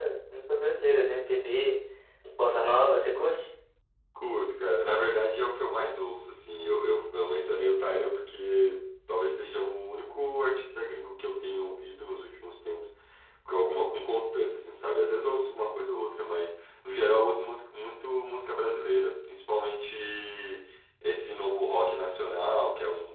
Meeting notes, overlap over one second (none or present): none